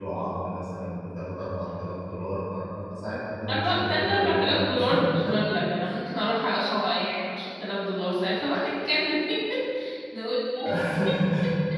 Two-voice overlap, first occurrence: 3 s

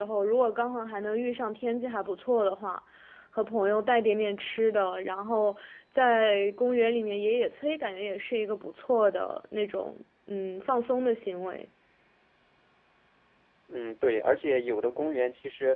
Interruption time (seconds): none

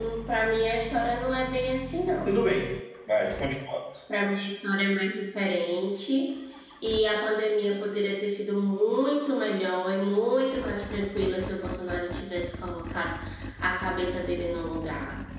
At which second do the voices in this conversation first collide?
none

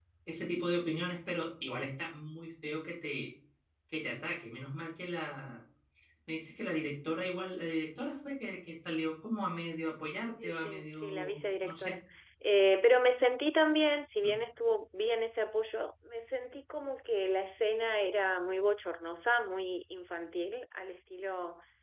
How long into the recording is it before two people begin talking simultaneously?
10 s

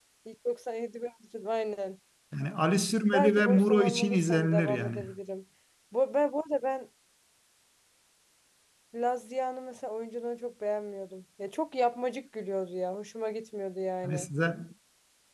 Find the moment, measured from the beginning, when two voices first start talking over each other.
3 s

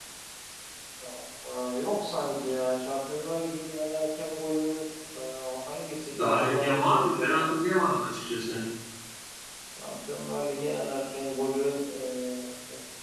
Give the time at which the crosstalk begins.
6 s

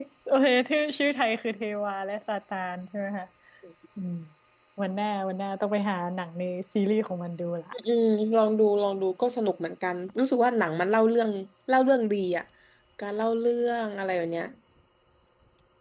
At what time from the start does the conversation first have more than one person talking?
none

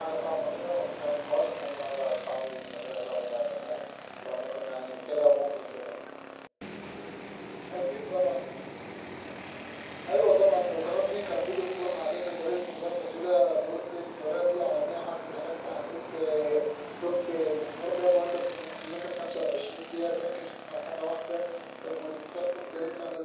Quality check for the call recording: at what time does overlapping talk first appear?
none

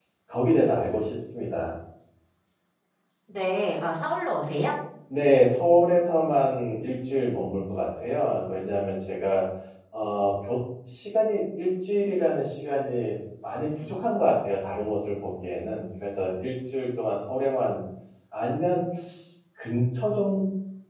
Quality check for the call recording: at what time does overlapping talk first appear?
none

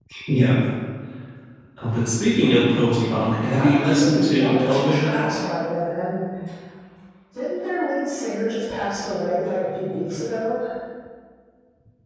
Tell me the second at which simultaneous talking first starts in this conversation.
4 s

